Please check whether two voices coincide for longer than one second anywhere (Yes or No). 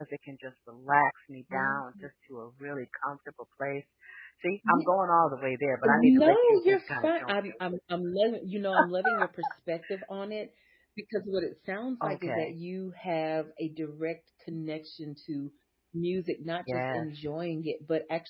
Yes